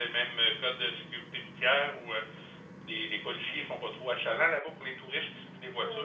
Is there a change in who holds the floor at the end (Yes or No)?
Yes